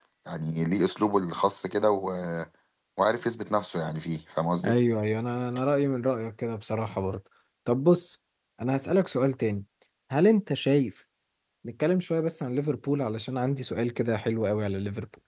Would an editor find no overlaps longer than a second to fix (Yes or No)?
Yes